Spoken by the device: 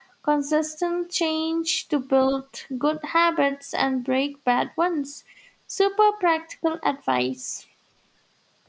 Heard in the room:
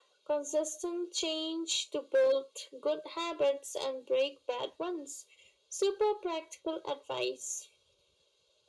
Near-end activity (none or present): none